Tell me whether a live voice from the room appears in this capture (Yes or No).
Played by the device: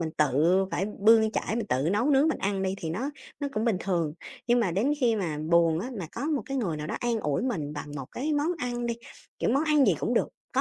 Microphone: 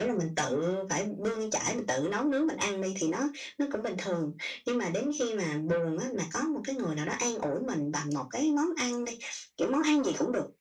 No